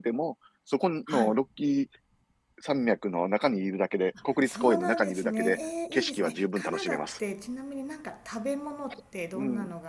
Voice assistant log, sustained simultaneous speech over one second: present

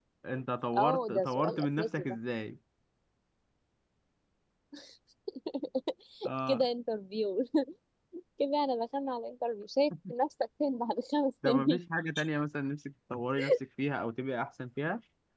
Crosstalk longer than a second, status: present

